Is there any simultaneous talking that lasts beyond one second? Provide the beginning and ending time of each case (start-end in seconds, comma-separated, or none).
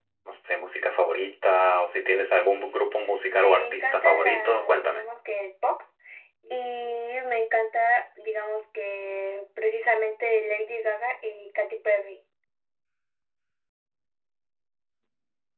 3.2-5.0